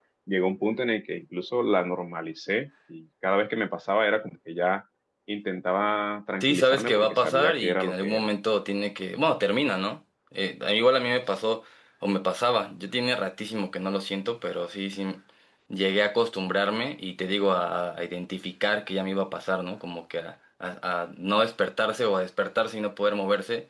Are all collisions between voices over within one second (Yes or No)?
No